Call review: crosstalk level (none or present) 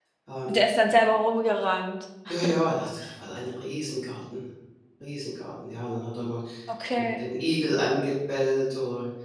none